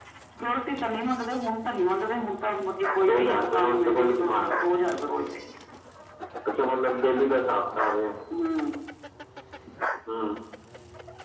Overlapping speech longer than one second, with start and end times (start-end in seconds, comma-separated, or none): 3.1-4.5